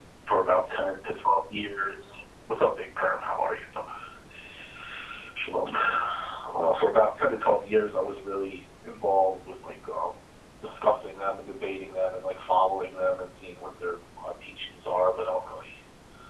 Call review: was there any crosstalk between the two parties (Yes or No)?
No